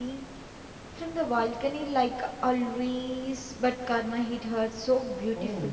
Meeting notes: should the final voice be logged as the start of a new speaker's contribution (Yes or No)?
Yes